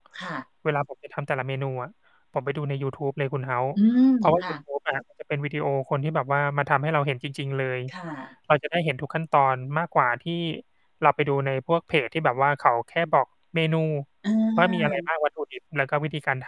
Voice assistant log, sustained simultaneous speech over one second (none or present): none